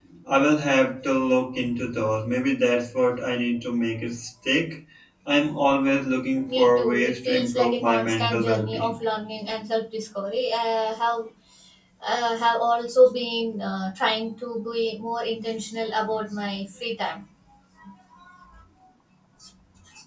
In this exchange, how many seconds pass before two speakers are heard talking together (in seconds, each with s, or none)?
6.5 s